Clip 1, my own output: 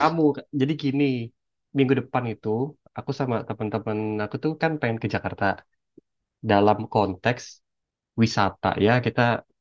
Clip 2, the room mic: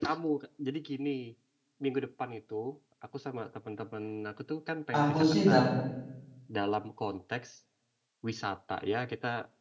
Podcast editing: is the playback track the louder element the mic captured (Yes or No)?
No